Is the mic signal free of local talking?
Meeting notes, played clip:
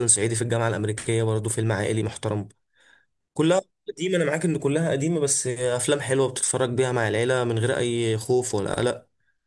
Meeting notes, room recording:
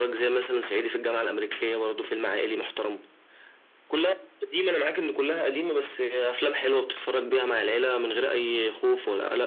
Yes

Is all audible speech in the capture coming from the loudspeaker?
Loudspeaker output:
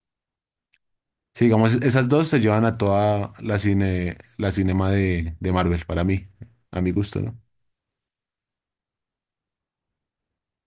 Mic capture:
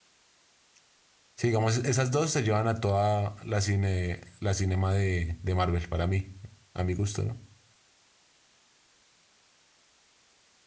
Yes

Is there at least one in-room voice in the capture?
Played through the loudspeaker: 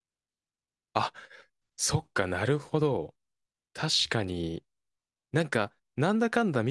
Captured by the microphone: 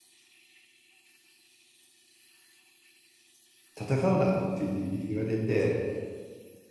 Yes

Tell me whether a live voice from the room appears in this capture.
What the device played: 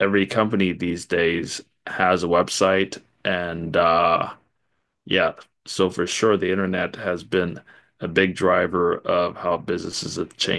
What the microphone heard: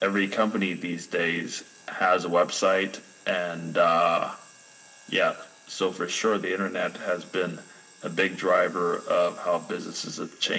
No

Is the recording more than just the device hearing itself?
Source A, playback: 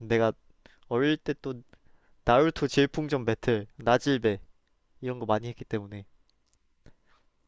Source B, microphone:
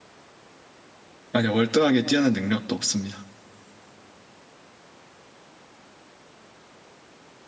Yes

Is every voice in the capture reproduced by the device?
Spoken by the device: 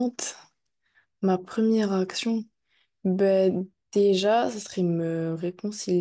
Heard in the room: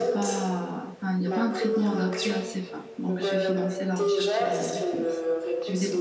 No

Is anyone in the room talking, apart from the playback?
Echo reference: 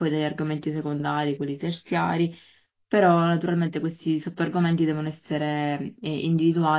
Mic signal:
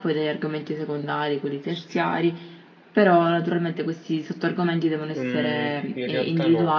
Yes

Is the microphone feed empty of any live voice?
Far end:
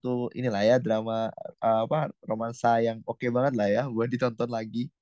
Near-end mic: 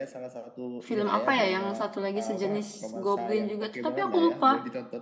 No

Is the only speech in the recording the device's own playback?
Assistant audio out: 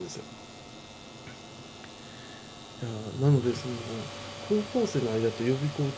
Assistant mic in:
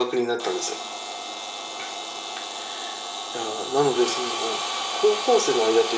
Yes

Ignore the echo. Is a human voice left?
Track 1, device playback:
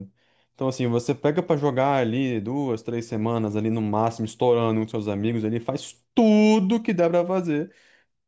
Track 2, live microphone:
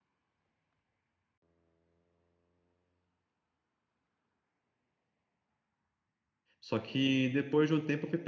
Yes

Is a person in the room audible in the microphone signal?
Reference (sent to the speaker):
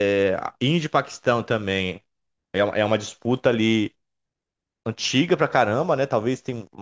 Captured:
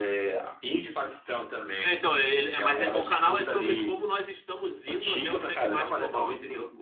Yes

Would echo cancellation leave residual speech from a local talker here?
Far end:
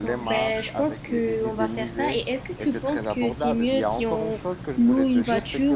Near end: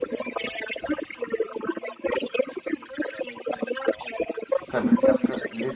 Yes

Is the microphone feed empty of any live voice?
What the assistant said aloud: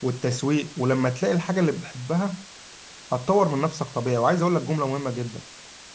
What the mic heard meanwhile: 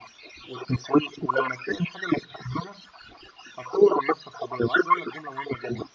Yes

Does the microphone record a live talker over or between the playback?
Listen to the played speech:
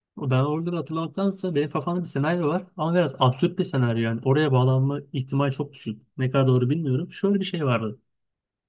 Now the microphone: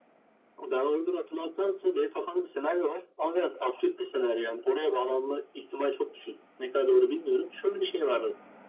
No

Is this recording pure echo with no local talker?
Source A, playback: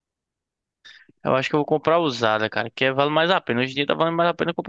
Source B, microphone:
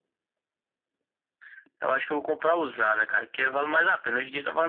Yes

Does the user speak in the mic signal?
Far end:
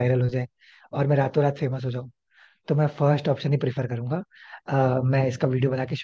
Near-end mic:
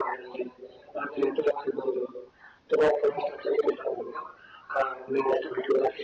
No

